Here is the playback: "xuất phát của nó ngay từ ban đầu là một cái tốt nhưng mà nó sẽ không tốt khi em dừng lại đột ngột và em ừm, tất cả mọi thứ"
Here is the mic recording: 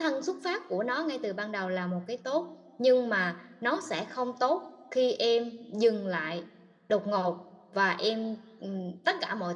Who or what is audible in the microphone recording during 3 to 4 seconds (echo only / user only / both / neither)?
echo only